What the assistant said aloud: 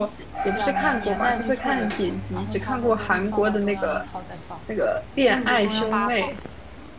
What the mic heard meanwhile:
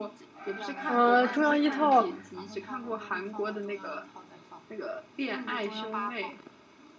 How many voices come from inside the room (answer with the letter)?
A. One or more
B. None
A